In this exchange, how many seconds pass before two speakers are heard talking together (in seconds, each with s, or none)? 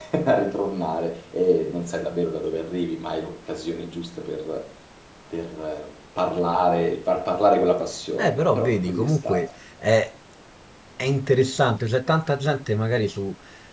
8.2 s